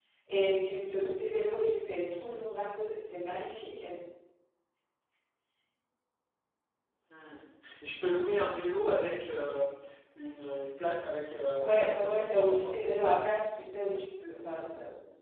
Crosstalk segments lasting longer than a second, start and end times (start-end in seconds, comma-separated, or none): 11.6-12.8